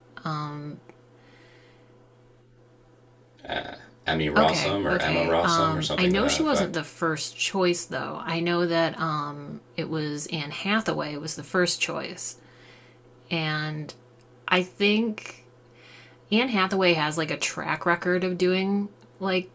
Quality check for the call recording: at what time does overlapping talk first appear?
4.3 s

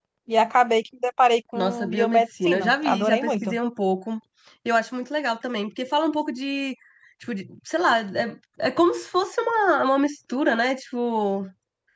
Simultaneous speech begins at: 1.6 s

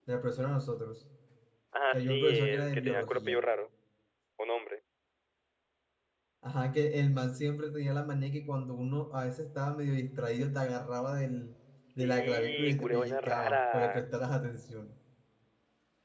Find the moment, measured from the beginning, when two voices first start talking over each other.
1.9 s

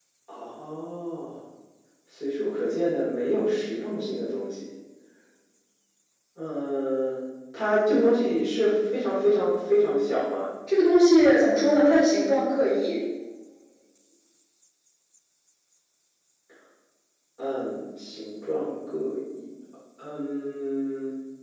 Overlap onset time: none

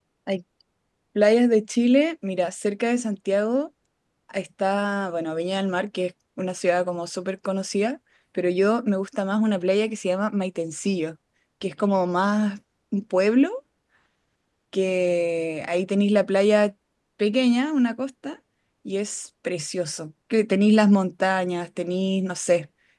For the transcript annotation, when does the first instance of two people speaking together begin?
none

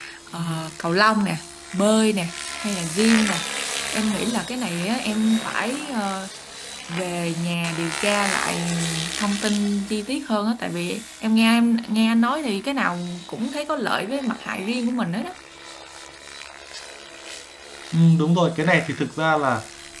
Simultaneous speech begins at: none

